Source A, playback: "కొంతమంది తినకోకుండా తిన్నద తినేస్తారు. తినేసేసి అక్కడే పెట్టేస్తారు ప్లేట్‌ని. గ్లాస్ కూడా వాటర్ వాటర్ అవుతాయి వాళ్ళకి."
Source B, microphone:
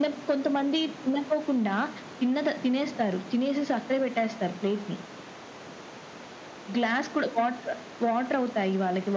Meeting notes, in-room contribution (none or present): none